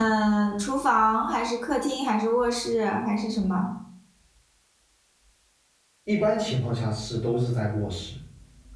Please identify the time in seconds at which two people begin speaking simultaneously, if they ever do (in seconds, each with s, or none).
none